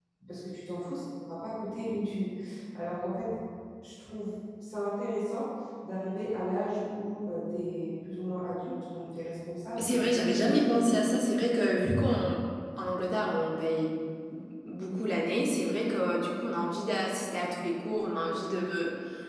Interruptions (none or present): present